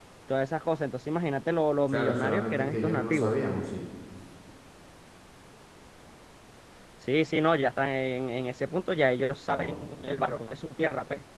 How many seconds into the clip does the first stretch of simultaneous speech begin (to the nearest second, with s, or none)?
2 s